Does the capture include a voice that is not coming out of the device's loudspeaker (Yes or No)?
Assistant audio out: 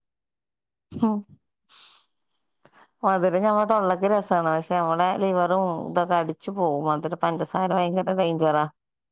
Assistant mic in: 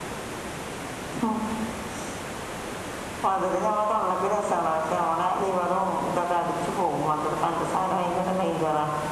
No